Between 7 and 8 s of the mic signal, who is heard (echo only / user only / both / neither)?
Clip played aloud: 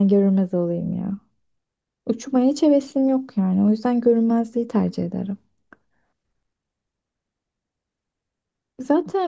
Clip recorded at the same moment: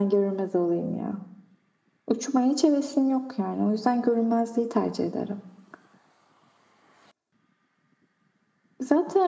neither